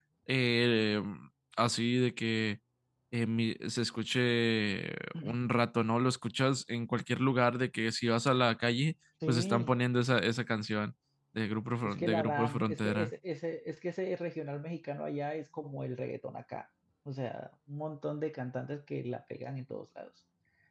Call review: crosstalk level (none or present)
present